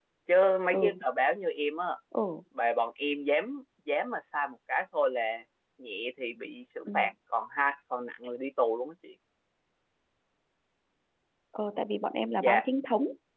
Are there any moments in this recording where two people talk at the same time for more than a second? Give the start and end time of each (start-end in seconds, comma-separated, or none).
none